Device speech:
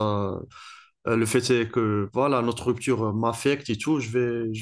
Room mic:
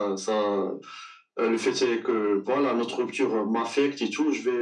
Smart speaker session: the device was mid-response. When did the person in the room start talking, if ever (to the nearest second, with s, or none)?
none